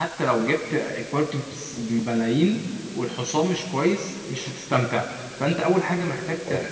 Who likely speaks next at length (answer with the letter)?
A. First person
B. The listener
A